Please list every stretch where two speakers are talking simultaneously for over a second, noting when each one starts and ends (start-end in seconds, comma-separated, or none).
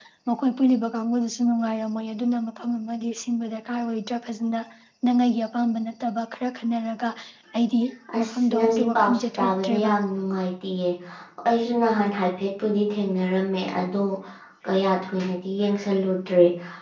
8.2-9.9